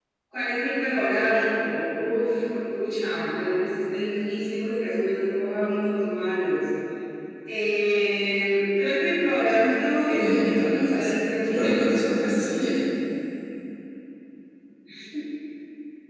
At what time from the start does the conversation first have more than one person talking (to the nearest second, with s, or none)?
10 s